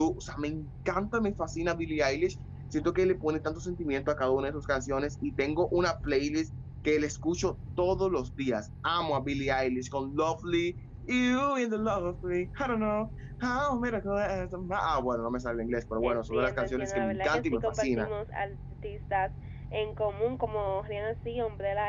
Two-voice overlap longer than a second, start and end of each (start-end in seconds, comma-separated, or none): 16.0-18.1